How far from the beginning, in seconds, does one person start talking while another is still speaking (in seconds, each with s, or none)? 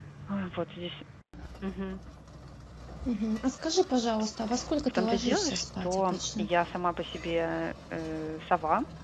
4.9 s